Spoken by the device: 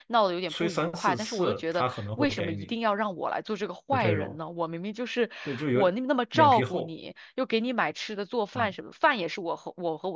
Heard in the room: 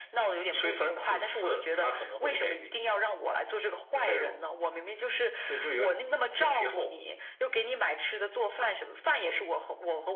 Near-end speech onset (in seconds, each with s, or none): none